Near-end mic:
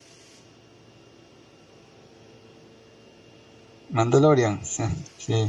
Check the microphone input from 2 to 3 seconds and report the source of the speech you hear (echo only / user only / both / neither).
neither